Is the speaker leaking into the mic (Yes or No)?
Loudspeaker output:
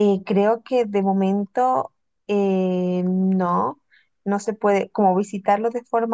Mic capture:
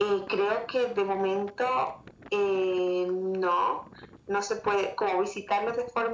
Yes